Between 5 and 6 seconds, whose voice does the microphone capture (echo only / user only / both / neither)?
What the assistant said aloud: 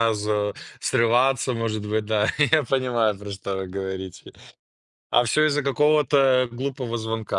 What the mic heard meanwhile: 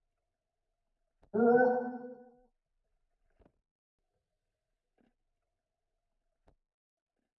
neither